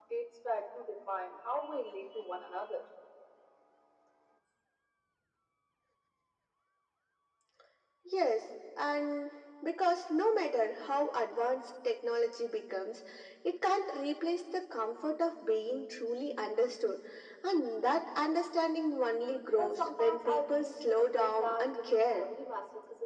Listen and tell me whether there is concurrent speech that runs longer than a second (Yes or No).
Yes